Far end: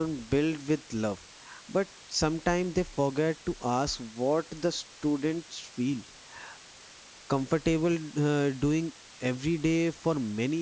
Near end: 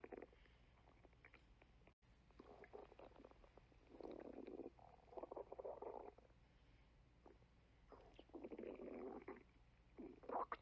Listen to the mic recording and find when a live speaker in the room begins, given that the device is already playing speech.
none

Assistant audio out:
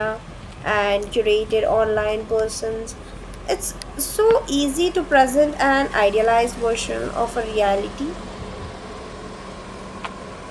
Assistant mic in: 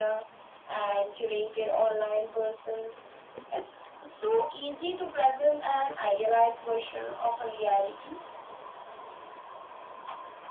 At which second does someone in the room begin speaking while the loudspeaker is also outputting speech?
none

